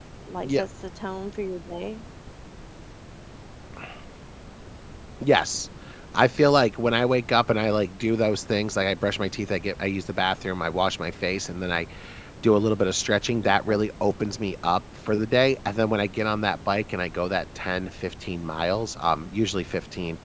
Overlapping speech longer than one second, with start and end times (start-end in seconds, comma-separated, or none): none